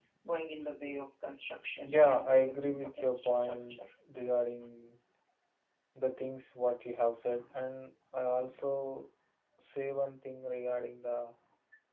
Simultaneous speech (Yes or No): Yes